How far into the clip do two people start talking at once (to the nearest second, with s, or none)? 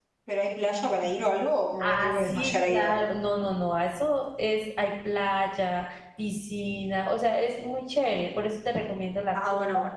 2 s